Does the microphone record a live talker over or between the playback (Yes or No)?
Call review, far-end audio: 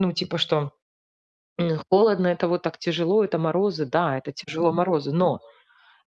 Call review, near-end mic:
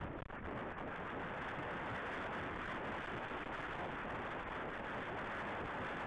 No